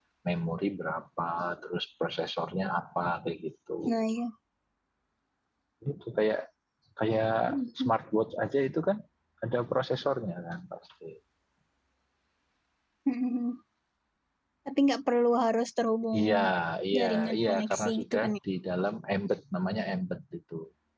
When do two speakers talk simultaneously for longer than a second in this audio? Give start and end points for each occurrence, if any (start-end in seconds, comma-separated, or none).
17.0-18.4